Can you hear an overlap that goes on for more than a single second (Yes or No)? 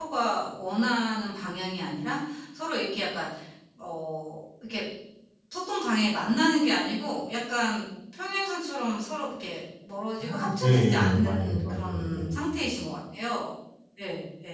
Yes